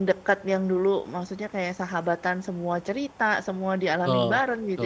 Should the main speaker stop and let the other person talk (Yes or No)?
Yes